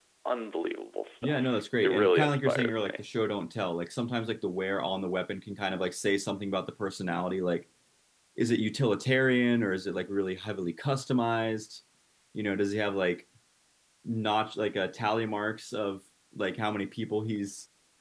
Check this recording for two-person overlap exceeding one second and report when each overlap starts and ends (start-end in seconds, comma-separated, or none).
1.2-3.0